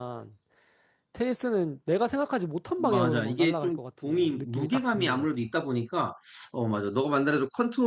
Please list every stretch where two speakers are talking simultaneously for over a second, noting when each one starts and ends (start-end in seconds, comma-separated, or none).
2.8-5.3